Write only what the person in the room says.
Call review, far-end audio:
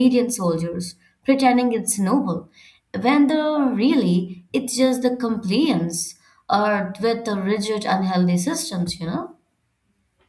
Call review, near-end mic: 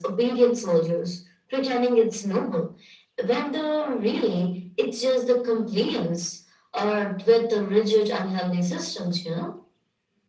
none

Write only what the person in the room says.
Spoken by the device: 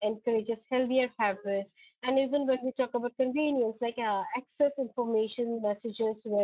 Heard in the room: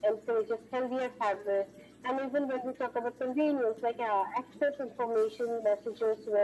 none

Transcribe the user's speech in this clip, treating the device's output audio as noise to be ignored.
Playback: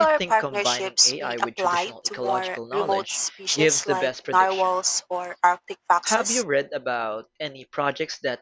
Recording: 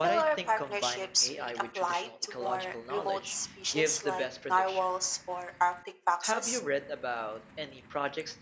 none

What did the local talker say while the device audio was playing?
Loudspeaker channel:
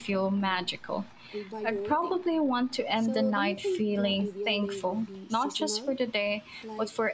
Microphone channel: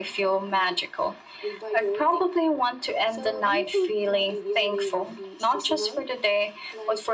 none

